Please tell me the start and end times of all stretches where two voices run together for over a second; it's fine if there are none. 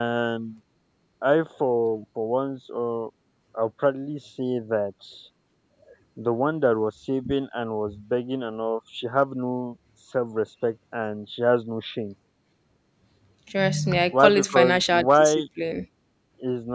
14.1-15.4

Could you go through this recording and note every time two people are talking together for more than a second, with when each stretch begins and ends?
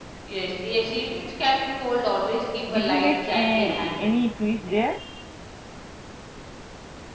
2.7-4.1

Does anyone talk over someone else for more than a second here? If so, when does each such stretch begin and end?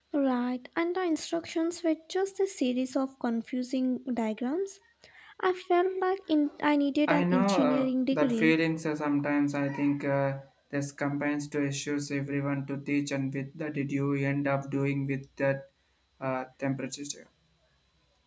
7.1-8.5

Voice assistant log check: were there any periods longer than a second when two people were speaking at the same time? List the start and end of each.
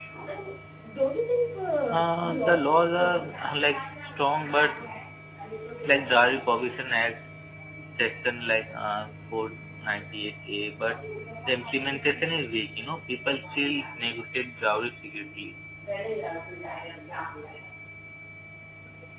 1.9-3.3

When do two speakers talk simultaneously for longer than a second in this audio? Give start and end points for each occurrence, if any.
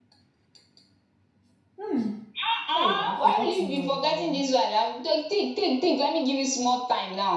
2.8-4.4

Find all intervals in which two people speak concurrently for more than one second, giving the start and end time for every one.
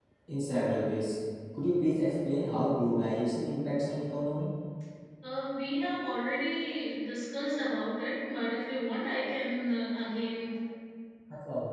none

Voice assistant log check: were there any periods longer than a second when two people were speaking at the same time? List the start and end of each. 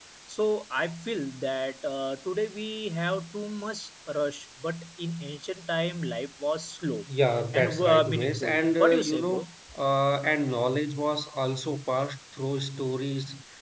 7.5-9.5

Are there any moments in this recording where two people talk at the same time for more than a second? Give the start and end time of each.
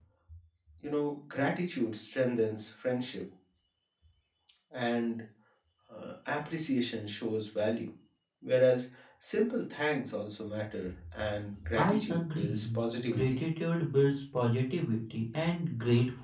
11.8-13.4

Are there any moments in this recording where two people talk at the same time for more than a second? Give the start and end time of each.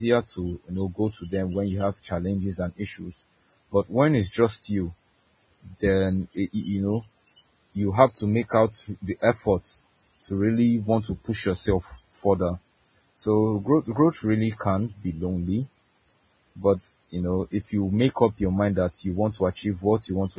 none

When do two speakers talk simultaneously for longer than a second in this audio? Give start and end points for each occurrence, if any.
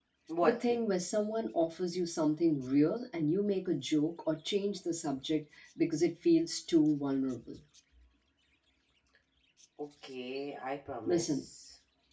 none

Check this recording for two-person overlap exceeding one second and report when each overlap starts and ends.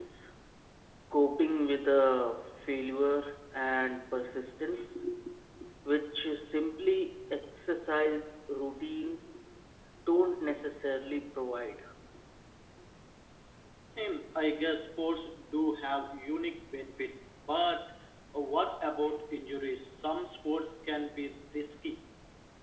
none

